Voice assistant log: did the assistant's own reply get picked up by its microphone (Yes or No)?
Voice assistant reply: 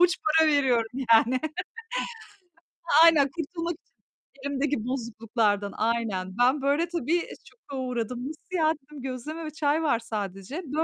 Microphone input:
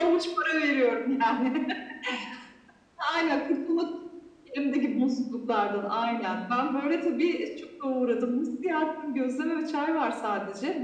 Yes